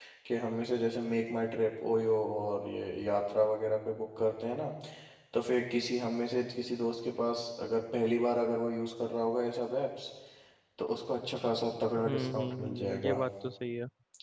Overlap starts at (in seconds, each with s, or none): 12.0 s